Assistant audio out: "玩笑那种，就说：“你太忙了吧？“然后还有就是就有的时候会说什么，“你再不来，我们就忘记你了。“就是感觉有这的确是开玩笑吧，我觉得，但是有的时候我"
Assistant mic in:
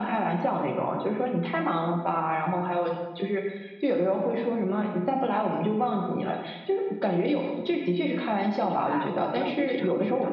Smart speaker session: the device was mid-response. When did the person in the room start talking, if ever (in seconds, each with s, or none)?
8.6 s